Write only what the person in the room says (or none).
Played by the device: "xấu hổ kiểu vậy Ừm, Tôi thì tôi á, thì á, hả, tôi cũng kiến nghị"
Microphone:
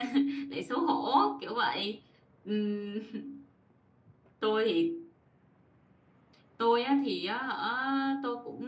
none